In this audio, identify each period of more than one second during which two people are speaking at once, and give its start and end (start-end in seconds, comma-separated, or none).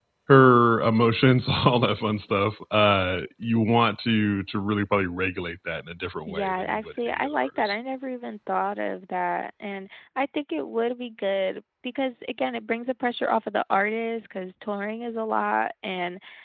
6.3-7.8